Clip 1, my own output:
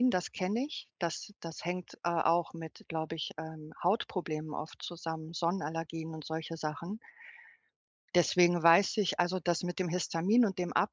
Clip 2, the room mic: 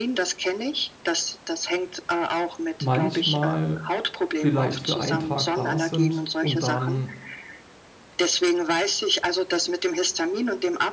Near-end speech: present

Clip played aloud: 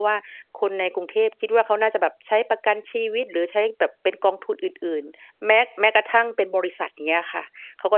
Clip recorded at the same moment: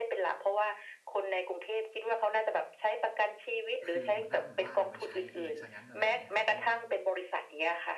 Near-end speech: present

